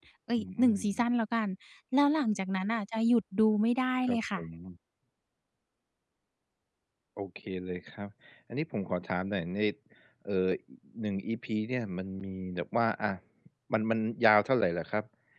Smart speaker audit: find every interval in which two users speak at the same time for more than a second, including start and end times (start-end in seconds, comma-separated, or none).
none